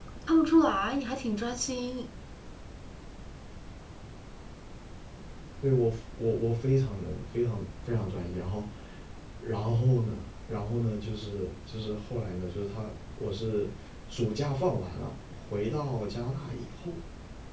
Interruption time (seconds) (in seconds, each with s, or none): none